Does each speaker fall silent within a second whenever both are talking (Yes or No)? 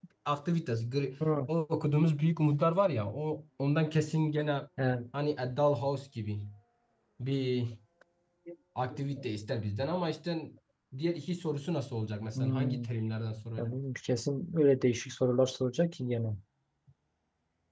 Yes